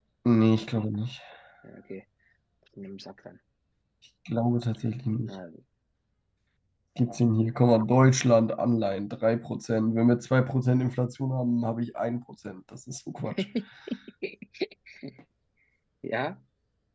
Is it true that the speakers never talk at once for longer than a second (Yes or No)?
Yes